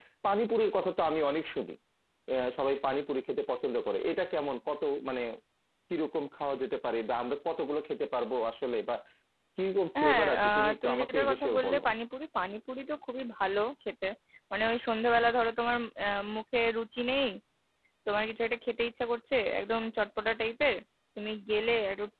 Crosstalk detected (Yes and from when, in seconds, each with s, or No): Yes, from 10.0 s